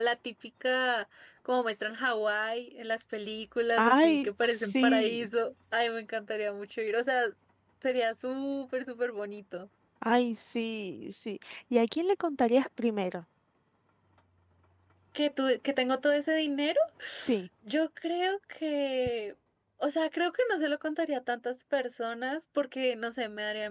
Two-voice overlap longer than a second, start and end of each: 3.8-5.3

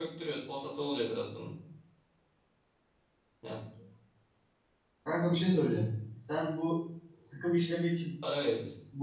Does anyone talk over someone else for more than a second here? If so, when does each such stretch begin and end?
none

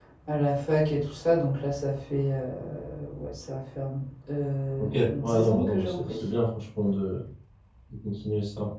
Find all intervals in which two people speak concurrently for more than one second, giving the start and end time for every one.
4.8-6.2

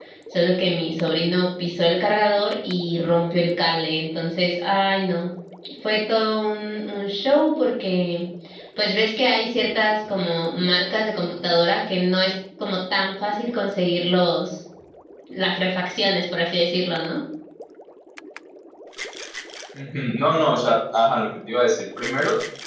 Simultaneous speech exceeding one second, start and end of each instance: none

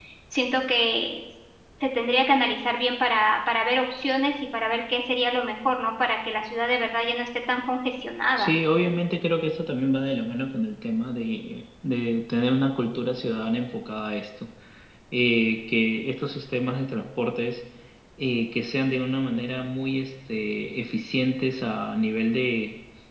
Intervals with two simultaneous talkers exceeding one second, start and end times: none

